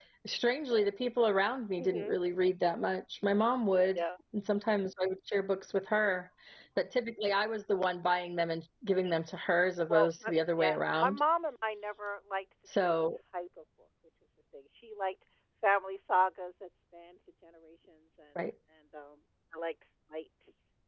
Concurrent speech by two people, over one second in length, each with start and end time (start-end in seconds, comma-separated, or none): 9.9-11.2